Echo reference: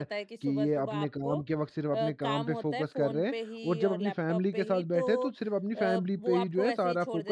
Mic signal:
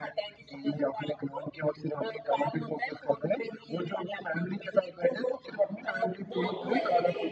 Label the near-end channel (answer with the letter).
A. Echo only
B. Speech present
B